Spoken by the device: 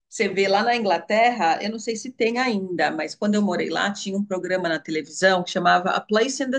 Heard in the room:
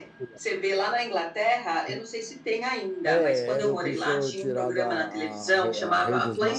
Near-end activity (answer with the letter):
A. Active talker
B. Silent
A